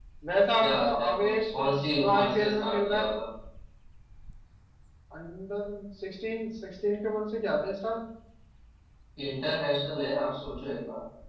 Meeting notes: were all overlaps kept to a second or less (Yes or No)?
No